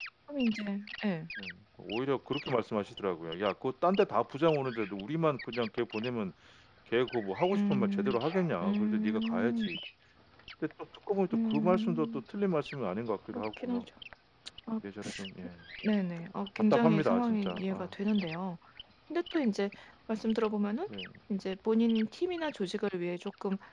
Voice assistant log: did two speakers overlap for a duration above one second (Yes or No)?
Yes